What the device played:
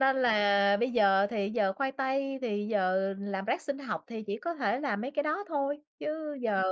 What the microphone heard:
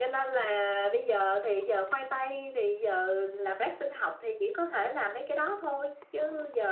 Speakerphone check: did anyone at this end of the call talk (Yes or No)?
No